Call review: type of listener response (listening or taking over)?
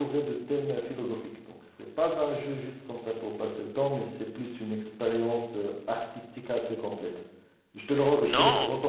taking over